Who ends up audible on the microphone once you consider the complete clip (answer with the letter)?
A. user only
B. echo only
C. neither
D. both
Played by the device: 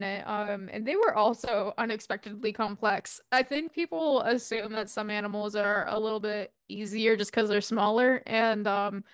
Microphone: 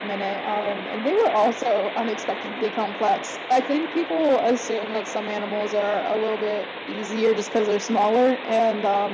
B